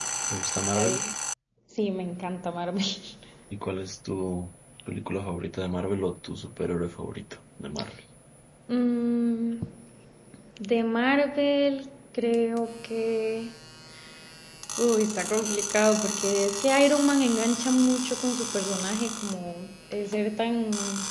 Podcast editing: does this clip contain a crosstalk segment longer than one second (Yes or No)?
No